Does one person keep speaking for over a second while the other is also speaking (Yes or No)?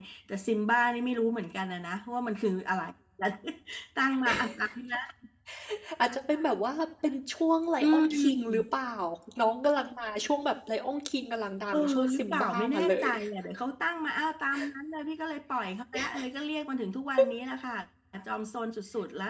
Yes